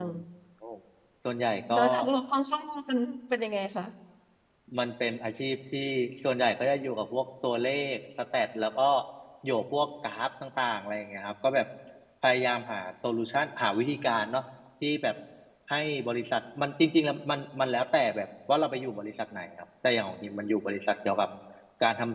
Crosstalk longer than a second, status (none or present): none